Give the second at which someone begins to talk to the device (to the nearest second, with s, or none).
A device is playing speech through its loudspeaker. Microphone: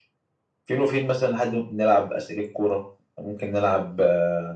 none